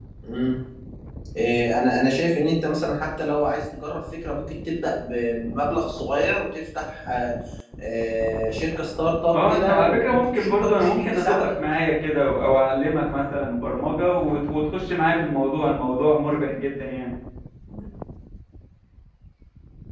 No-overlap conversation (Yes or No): No